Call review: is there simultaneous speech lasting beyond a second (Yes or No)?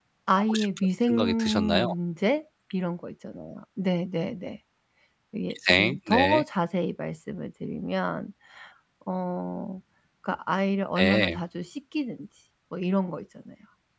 Yes